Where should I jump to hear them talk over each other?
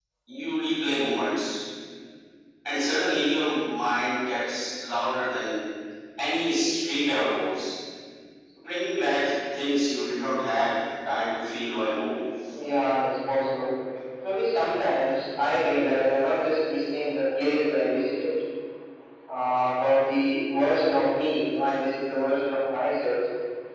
none

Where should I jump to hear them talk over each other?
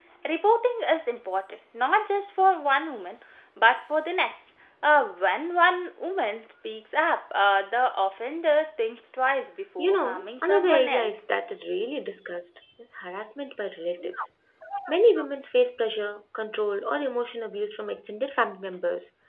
10 s

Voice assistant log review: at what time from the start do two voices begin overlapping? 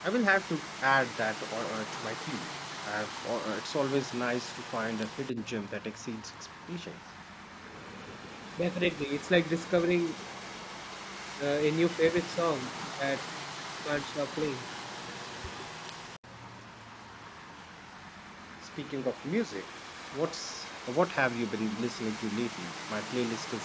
none

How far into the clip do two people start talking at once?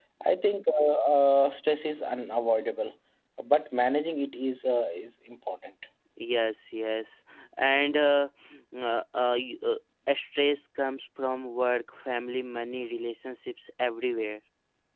none

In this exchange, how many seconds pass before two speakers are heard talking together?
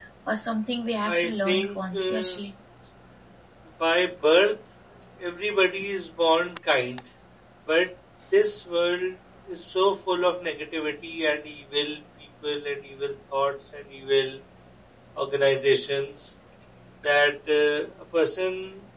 1 s

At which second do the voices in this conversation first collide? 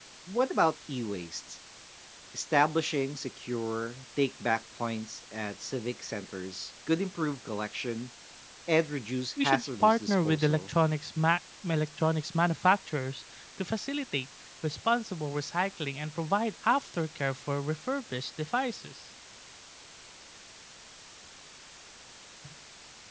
9 s

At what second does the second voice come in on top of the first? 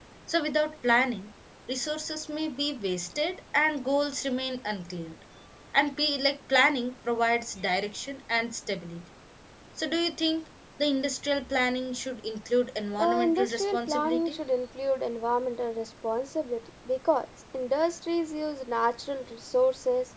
13 s

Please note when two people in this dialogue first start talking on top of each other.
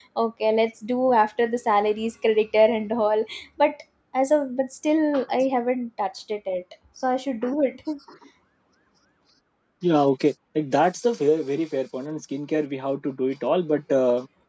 none

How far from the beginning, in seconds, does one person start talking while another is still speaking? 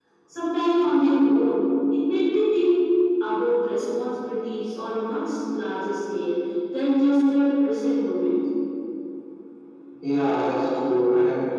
none

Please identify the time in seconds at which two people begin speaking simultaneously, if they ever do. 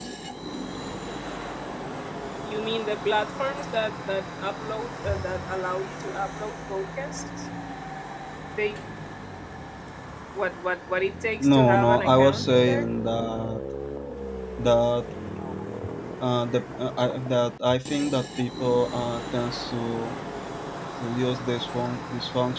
11 s

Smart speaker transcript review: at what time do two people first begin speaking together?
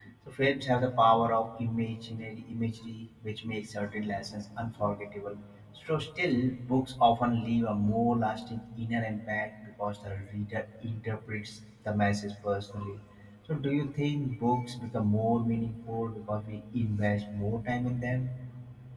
none

